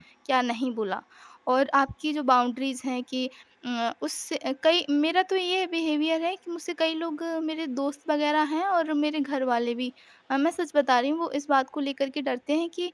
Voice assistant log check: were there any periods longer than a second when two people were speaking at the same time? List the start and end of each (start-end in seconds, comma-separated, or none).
none